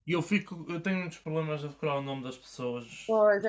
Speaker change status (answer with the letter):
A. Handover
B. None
A